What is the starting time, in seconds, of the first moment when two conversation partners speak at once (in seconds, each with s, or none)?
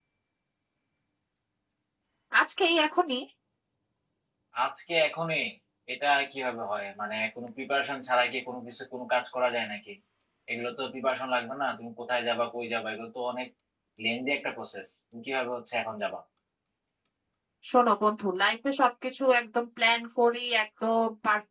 none